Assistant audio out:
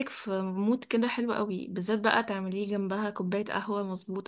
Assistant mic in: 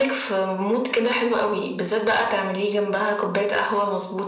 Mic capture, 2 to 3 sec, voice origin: echo only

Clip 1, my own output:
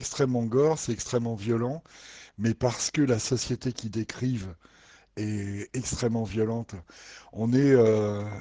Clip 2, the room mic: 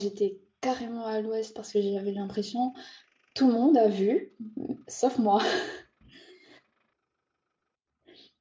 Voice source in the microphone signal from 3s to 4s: user only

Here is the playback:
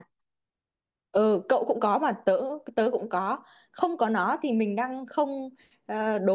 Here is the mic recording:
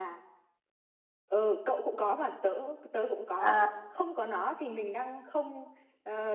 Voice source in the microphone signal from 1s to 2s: echo only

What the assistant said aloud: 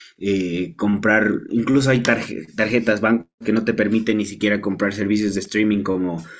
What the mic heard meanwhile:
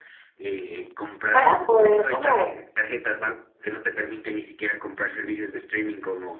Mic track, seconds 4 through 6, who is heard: echo only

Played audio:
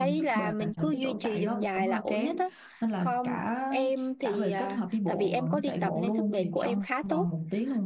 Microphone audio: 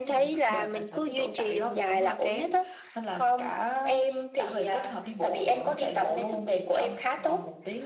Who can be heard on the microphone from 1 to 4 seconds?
echo only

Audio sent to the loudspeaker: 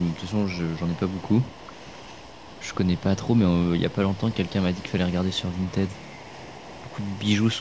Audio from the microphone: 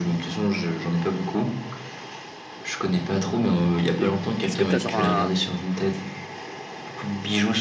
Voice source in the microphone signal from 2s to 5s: both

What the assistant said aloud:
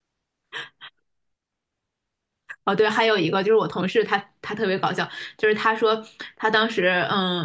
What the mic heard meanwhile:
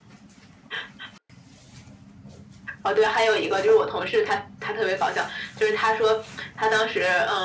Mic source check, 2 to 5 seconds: echo only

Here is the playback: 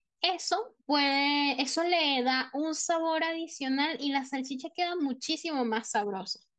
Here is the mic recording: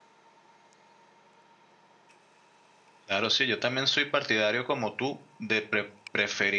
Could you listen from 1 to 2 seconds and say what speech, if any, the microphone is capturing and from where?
neither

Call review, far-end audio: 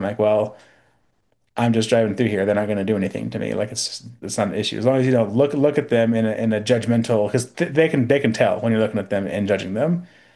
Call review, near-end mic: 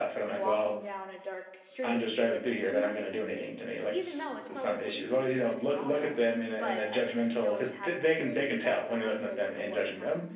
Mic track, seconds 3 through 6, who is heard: both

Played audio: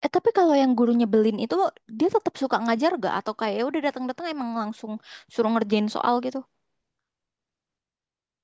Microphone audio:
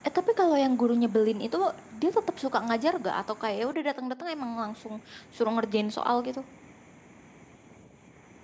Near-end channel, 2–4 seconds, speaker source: echo only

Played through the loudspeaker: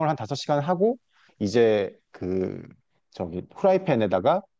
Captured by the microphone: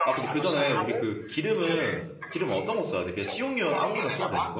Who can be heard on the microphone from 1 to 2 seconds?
both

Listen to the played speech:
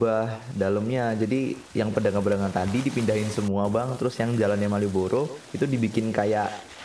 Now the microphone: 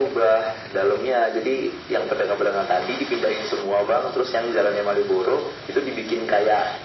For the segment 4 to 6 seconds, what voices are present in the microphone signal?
echo only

